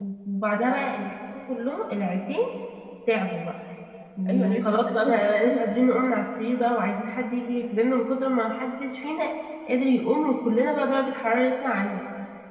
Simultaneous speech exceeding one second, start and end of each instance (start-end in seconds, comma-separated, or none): 4.3-5.8